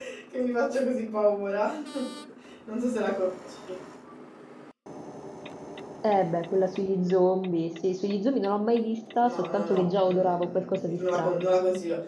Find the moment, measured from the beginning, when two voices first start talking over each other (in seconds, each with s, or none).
9.2 s